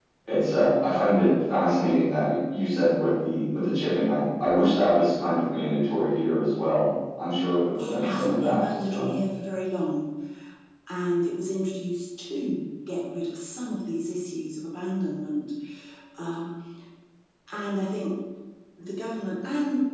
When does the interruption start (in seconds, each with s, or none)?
7.8 s